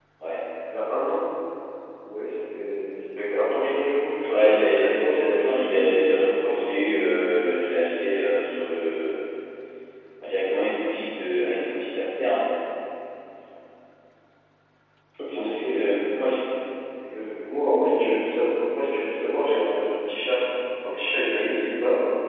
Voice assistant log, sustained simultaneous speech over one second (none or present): present